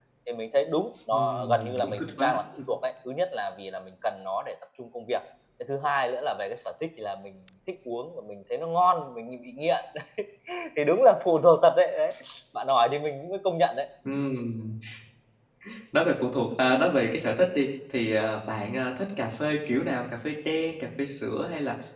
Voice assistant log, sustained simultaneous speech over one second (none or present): present